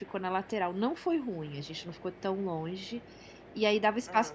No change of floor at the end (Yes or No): Yes